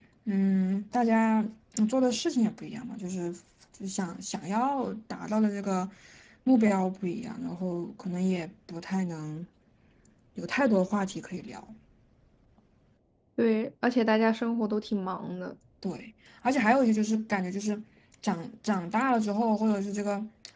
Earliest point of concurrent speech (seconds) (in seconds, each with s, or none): none